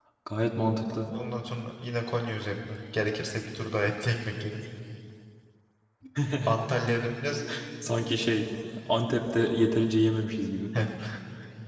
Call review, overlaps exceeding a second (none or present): none